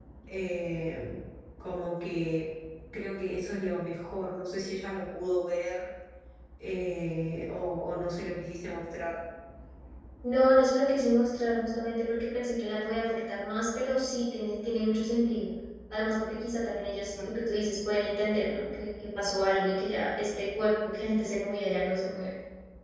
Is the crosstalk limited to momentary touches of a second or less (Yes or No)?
Yes